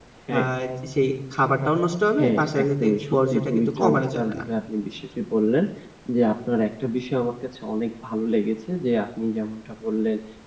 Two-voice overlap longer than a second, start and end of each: 2.2-4.4

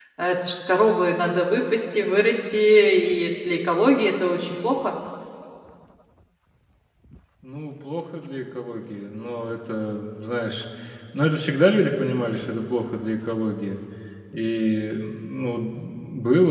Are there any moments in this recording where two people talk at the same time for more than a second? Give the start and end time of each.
none

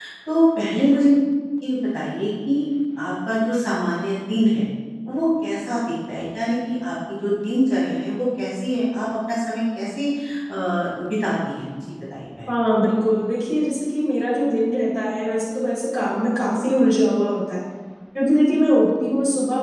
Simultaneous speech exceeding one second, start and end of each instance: none

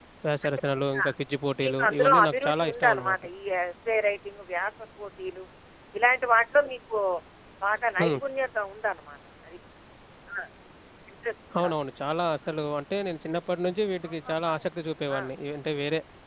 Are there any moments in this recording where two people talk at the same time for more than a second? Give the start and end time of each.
1.6-3.2

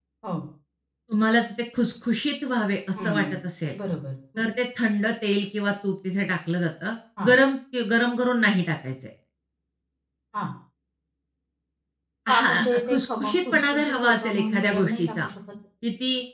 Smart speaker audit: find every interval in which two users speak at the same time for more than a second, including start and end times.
12.3-15.3

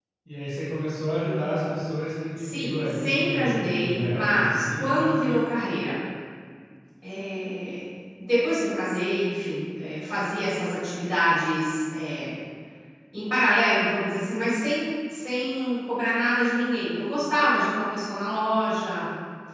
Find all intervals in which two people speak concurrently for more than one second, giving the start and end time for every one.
2.4-5.1

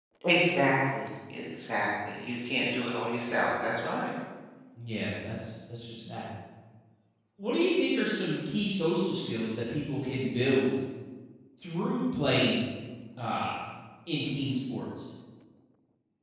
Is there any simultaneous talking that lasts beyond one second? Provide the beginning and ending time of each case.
none

